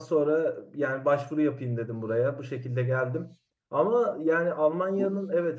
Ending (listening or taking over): listening